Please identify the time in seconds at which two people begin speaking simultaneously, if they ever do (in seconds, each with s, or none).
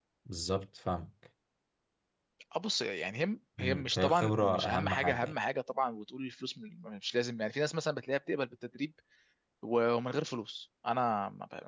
3.6 s